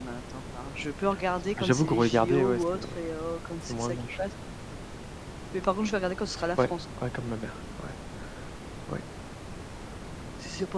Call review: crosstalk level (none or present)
present